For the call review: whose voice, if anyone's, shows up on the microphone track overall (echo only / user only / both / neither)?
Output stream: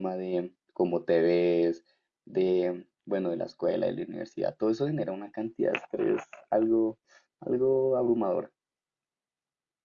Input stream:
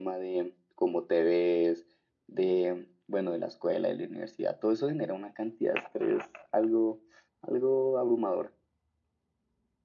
echo only